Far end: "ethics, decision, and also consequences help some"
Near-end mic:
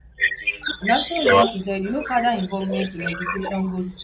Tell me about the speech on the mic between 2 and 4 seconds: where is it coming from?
both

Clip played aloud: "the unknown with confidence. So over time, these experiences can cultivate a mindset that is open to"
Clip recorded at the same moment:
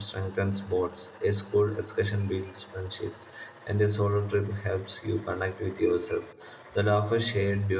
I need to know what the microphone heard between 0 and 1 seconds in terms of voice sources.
user only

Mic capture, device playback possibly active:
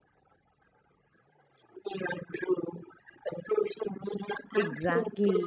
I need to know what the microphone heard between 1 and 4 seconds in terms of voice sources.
echo only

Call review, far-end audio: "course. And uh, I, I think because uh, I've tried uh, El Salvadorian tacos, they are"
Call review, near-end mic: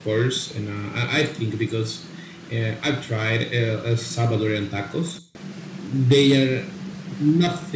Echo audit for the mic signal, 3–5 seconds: echo only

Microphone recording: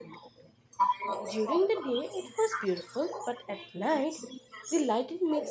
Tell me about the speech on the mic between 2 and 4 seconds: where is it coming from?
both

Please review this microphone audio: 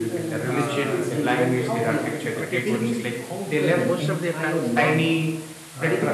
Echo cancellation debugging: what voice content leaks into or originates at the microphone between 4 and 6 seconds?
both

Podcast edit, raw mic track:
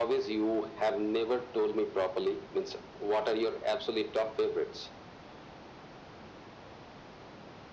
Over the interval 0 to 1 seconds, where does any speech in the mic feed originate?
echo only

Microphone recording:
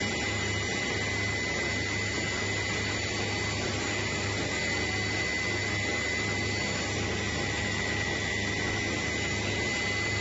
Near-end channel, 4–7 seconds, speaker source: neither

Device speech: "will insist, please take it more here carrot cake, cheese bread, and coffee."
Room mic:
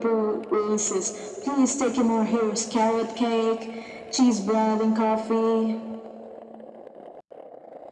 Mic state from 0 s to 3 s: echo only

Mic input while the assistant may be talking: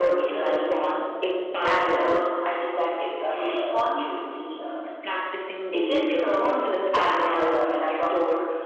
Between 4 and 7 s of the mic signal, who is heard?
both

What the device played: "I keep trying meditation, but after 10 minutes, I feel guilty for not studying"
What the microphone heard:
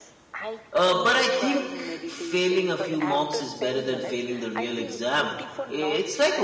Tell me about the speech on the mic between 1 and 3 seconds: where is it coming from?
both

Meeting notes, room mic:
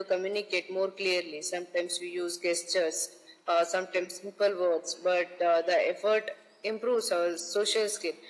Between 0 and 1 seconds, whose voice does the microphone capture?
echo only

